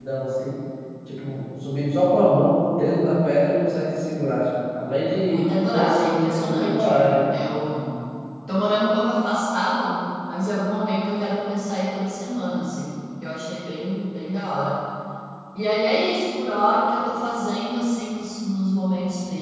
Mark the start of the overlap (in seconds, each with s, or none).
5.2 s